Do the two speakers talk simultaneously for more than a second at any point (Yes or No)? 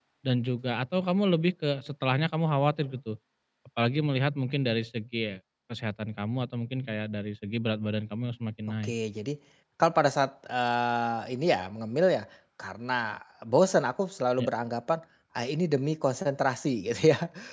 No